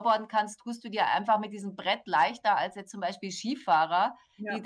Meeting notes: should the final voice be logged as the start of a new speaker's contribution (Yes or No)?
No